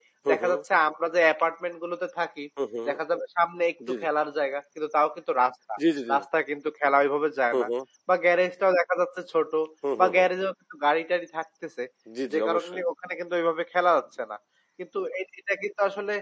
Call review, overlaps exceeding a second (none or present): none